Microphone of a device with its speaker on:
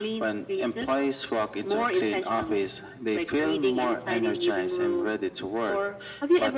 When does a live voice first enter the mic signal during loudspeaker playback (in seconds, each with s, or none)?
none